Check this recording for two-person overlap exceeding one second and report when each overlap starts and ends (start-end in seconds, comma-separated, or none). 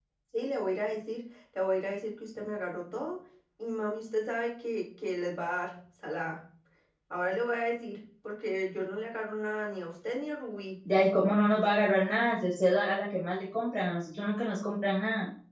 none